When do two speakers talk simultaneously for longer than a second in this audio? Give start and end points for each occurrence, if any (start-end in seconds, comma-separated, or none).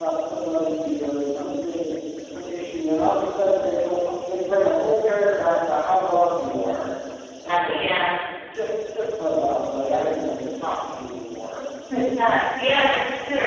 none